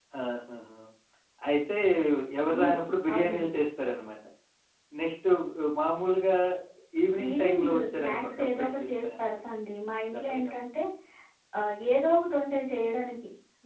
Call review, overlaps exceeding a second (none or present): present